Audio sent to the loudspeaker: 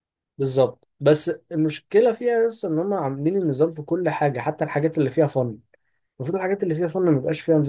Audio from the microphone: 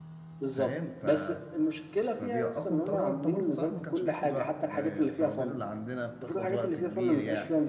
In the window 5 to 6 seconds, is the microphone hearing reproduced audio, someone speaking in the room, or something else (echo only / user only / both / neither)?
both